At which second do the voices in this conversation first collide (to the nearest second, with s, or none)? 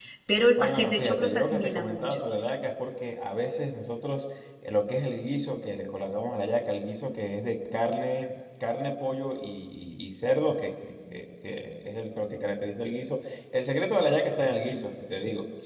1 s